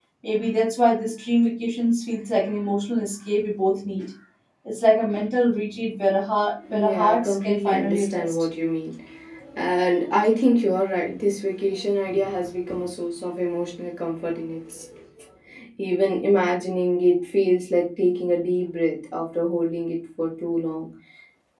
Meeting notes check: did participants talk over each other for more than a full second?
Yes, from 6.6 s

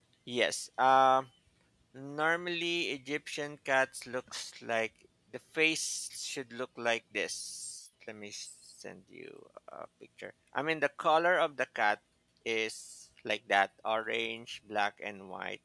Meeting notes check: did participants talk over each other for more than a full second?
No

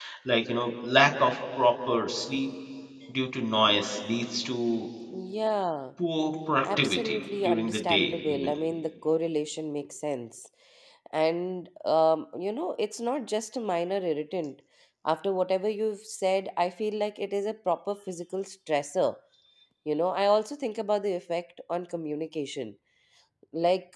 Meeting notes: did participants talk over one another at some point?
Yes, from 6.8 s

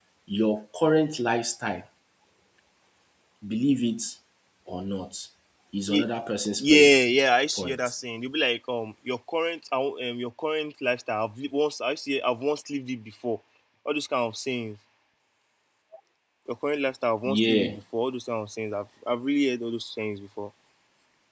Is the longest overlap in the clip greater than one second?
No

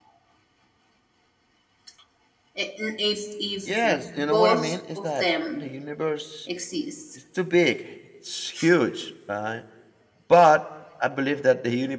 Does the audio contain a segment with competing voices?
Yes, from 3.6 s

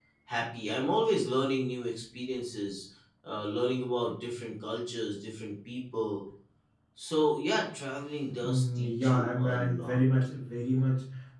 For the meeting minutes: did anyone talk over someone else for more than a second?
Yes, from 8.4 s

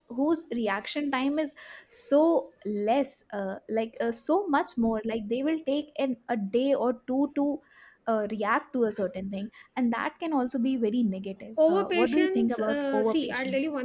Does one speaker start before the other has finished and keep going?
Yes, from 11.6 s

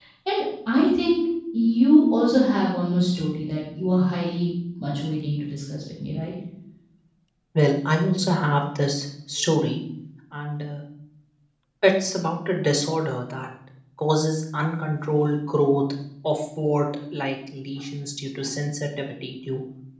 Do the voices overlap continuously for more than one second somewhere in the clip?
No

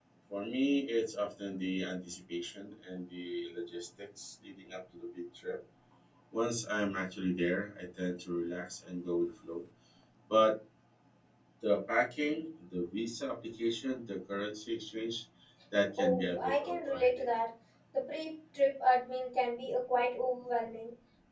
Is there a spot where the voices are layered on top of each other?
Yes, from 16.0 s

